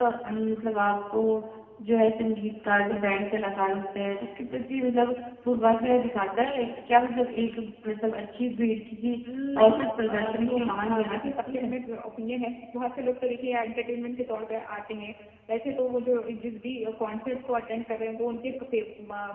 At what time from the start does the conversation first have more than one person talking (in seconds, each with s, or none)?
9.6 s